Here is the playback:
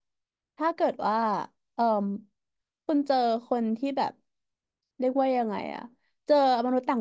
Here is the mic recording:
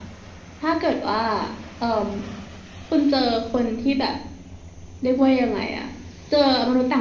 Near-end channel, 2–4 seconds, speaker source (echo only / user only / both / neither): echo only